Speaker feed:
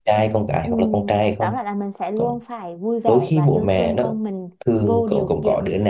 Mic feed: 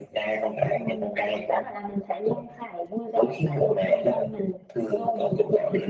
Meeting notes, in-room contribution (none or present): none